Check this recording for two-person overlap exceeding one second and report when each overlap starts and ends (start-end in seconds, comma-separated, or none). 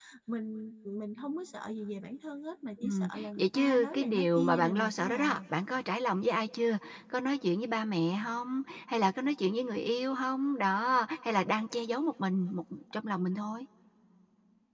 2.8-5.4